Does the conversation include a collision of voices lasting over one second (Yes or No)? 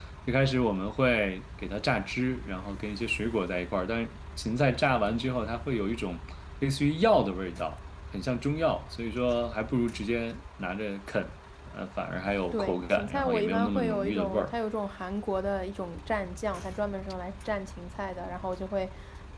Yes